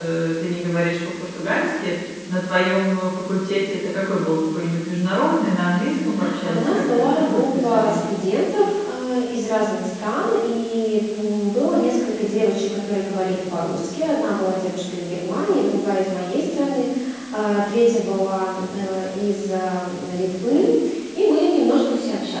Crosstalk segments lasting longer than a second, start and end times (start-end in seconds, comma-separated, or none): 6.4-8.1